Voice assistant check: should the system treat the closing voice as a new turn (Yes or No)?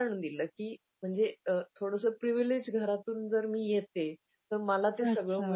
No